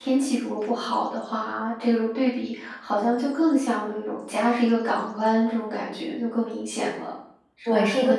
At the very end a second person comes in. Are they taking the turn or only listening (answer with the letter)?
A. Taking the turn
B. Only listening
A